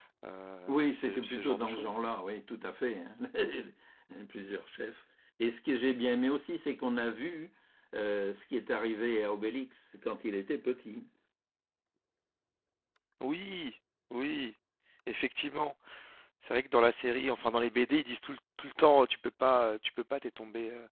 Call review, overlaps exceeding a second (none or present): present